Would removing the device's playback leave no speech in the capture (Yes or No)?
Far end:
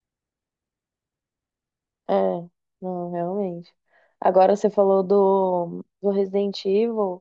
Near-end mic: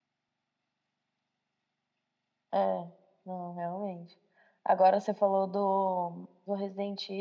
Yes